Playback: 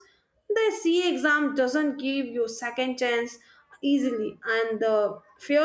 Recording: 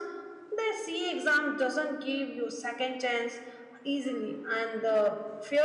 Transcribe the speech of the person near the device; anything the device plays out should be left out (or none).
none